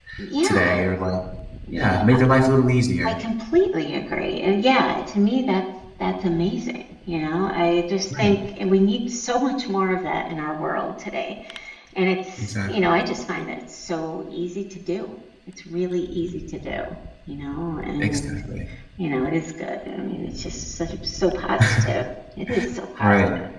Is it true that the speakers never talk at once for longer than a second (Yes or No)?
Yes